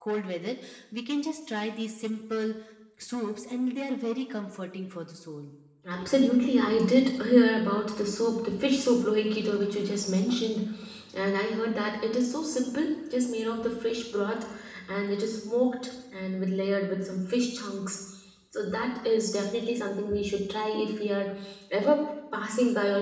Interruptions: none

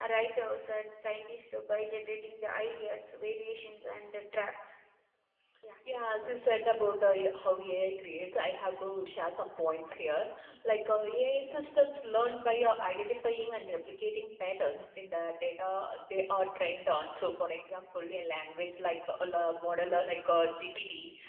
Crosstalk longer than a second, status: none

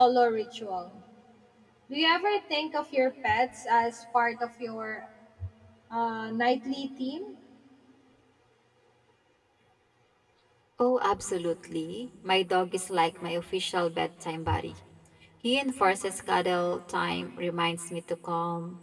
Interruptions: none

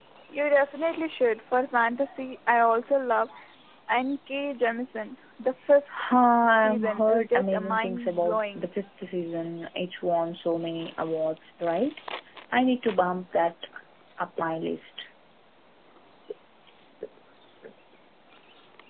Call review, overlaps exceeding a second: present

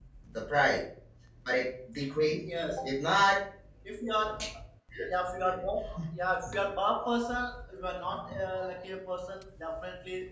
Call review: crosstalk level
none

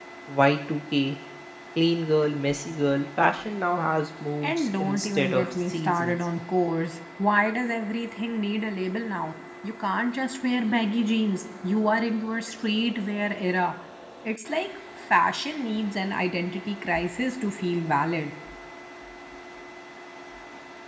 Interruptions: present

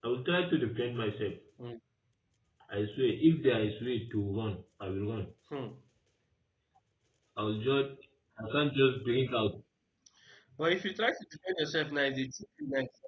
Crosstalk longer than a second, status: none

